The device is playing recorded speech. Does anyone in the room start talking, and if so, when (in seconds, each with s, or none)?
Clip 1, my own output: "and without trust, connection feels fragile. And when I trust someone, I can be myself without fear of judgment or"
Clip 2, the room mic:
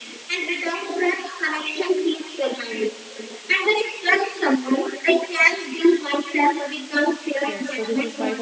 7.5 s